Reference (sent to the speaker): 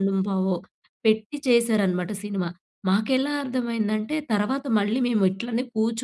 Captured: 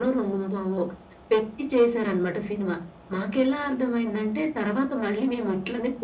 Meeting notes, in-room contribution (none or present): none